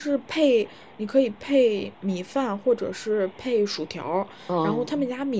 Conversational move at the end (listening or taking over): listening